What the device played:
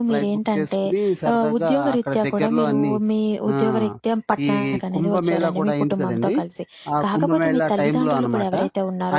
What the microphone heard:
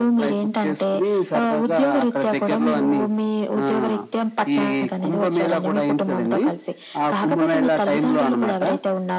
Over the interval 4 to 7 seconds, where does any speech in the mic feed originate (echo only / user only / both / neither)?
echo only